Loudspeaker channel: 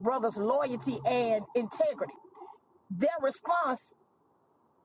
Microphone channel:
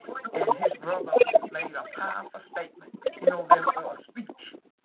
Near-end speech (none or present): present